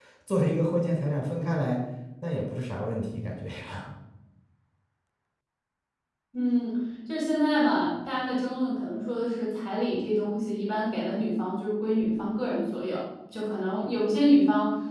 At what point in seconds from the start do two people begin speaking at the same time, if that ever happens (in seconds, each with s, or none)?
none